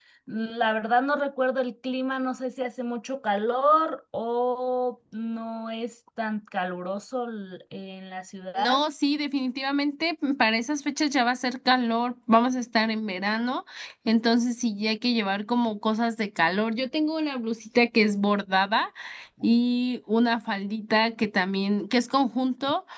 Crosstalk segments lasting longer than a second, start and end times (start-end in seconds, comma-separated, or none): none